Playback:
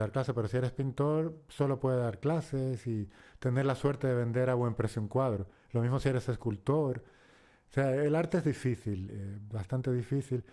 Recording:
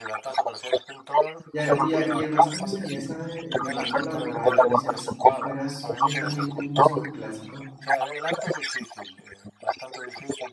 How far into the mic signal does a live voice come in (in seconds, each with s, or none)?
1.5 s